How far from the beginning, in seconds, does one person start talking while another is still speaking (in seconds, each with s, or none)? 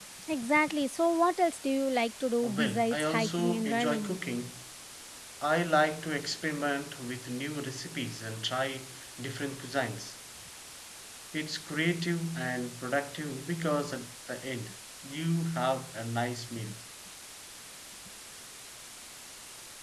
2.4 s